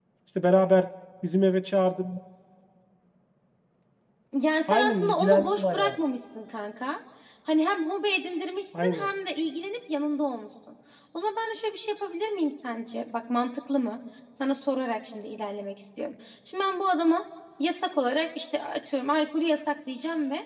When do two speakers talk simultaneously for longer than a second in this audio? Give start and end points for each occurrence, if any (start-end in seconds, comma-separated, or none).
4.7-5.9